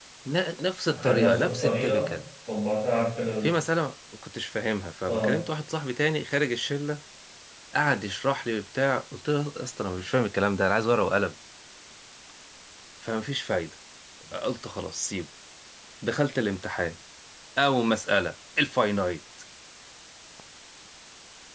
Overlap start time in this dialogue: 0.9 s

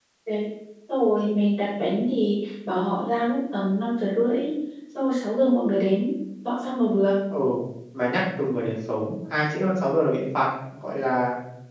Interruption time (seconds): none

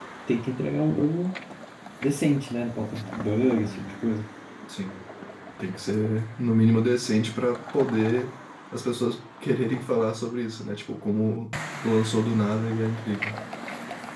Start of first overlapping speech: none

